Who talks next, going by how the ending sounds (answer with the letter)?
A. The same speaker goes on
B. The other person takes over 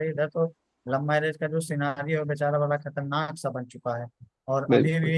A